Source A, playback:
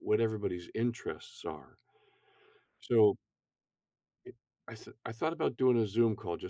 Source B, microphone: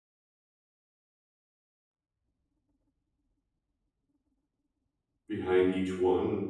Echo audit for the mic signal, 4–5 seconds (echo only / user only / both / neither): neither